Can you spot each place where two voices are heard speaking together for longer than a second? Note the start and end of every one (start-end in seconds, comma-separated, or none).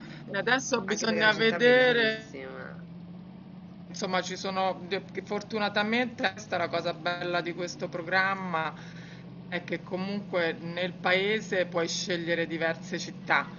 0.9-2.2